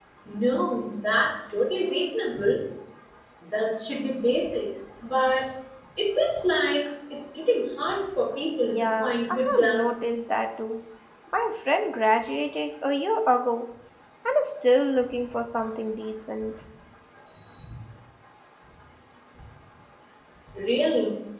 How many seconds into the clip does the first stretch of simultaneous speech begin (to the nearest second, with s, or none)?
9 s